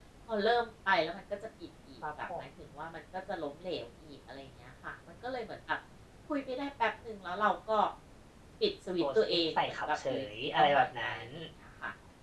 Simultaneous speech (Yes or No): Yes